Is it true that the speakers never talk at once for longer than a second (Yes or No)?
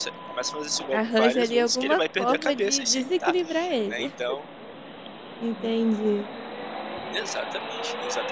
No